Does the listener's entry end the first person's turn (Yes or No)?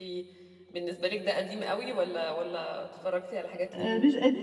Yes